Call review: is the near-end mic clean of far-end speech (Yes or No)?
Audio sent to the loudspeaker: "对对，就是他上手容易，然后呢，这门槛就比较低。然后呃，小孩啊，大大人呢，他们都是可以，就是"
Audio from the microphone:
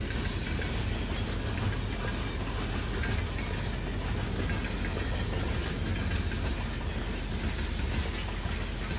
Yes